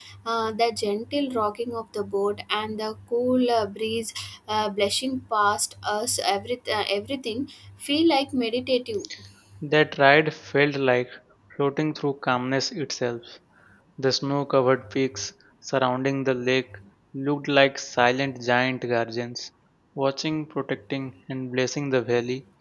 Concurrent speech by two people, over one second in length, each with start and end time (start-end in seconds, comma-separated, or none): none